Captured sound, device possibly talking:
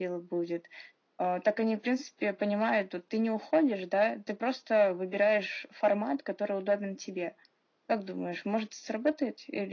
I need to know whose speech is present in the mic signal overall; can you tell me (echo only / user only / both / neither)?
echo only